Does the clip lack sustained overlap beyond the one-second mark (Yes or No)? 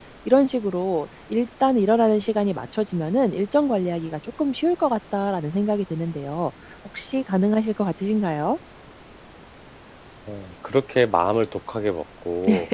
Yes